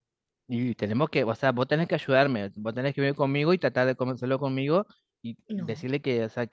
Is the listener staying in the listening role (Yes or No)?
Yes